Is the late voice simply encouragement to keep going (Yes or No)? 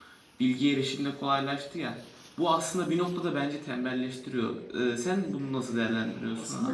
No